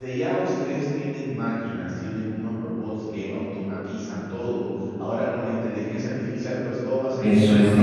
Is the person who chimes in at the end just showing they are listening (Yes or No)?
No